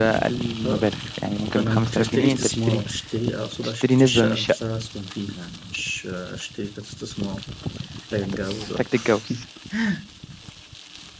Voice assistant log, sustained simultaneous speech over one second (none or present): present